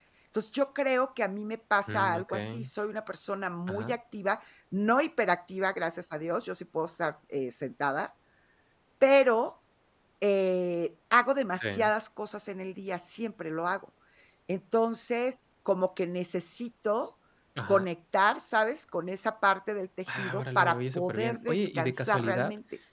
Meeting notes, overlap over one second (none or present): present